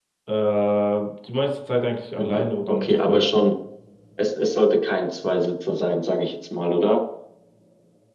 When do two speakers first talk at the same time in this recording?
2.2 s

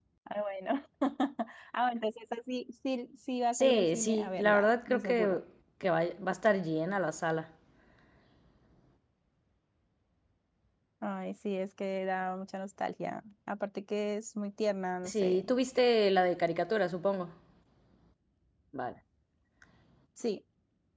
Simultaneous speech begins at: 3.5 s

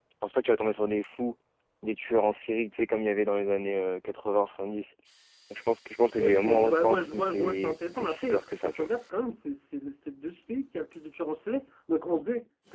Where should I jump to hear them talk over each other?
6.2 s

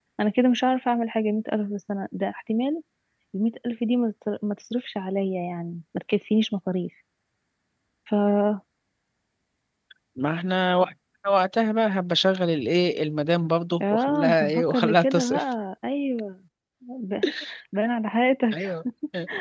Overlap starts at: 13.8 s

